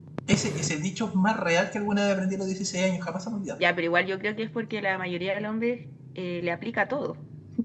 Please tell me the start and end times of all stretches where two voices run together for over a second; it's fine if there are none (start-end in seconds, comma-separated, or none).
none